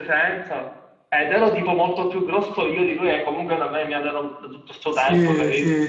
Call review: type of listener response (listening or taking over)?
taking over